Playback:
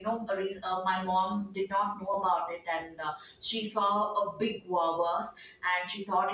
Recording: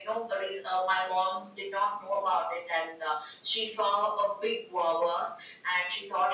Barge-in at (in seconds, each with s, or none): none